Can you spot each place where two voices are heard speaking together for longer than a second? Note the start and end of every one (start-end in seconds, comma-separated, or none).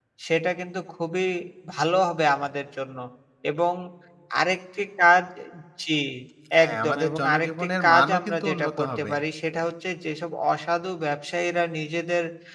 6.6-9.1